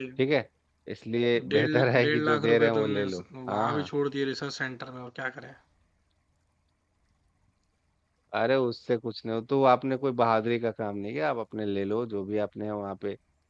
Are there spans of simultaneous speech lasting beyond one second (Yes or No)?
Yes